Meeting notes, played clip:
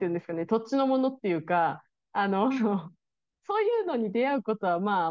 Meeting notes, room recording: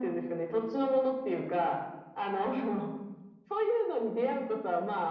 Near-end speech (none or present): none